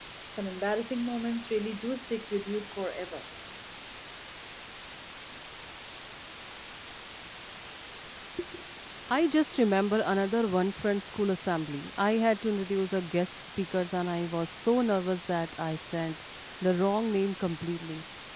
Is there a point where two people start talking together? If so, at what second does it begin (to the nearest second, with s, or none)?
none